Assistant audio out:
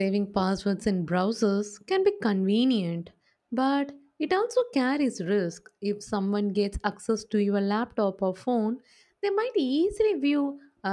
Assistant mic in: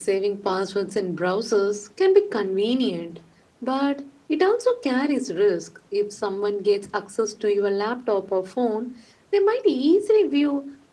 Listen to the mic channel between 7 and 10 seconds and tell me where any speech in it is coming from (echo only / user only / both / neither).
echo only